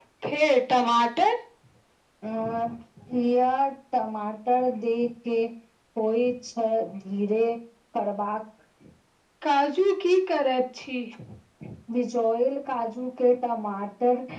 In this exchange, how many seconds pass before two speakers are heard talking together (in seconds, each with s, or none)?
none